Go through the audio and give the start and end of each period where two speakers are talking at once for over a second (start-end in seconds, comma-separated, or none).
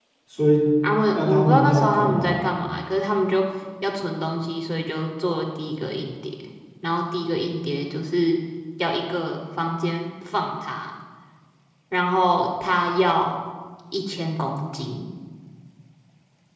1.1-2.5